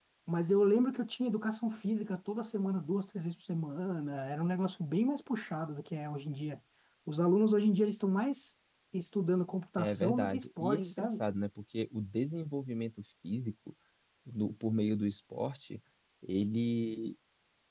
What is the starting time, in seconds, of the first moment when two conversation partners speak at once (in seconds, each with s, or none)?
9.8 s